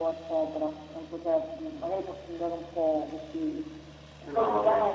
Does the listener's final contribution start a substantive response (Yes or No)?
No